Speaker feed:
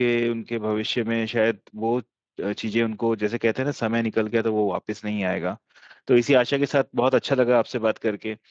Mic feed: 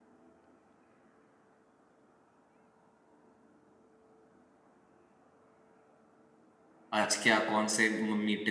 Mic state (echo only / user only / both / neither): user only